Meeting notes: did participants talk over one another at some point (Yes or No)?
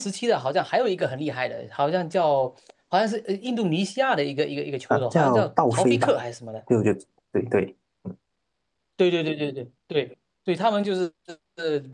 Yes